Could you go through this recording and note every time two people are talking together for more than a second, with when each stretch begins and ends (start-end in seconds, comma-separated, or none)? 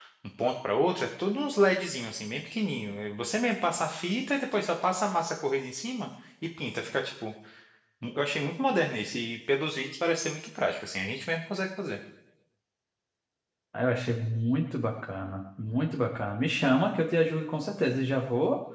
none